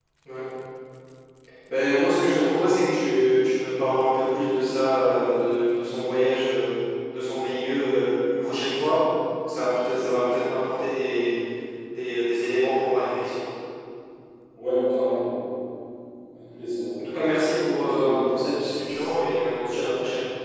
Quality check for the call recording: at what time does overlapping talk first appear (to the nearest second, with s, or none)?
18 s